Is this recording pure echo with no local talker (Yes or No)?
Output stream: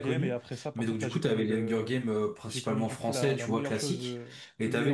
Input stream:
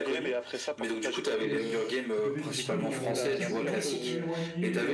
No